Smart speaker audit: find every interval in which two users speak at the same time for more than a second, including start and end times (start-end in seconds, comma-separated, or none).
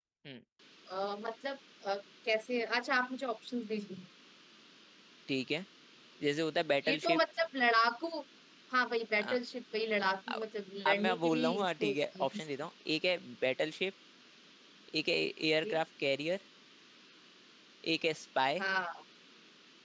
10.9-12.4